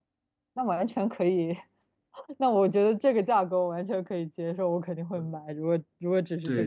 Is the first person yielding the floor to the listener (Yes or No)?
Yes